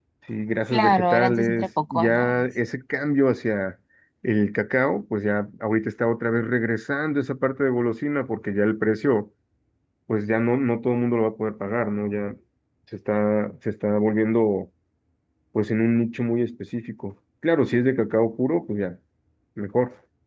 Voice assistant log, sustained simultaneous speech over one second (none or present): present